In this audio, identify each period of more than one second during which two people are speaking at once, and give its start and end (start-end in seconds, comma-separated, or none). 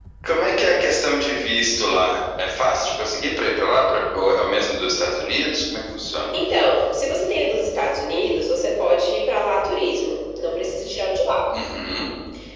none